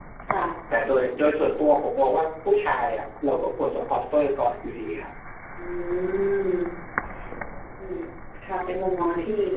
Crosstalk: none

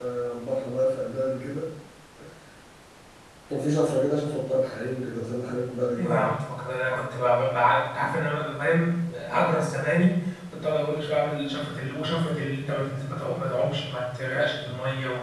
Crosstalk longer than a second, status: none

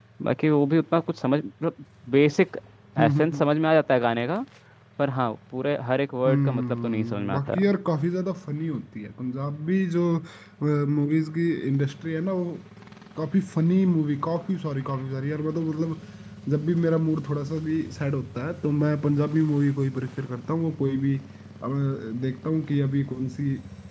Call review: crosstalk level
present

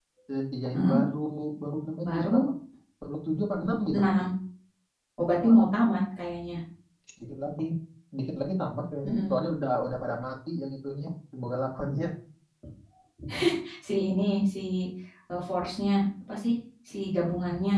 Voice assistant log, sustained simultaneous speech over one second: none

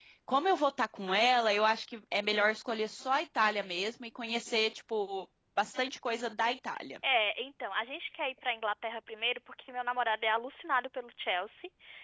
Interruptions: none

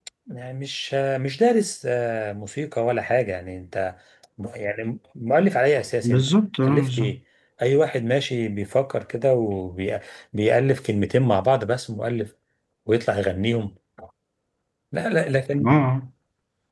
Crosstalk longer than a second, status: none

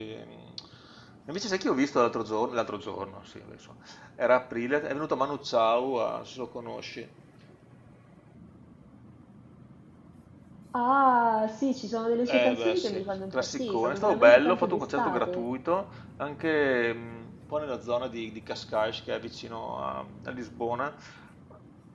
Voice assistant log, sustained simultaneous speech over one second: present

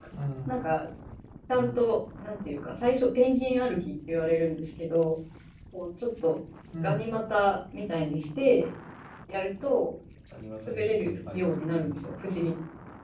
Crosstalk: present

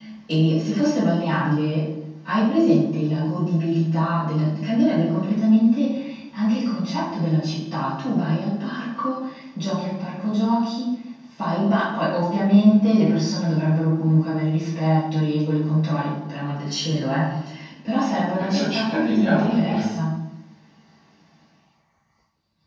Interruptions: present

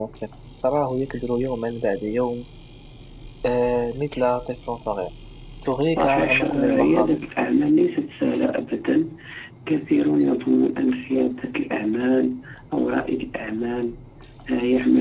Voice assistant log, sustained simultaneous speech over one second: present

